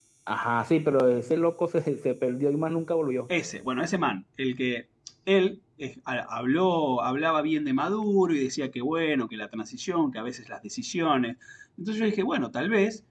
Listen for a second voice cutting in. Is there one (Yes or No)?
No